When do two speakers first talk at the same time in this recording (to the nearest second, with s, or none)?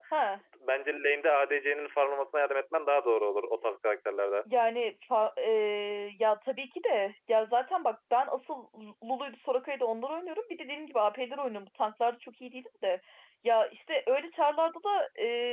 none